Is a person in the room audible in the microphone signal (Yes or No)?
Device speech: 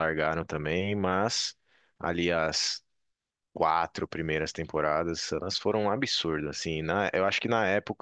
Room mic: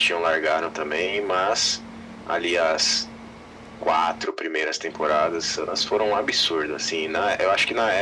No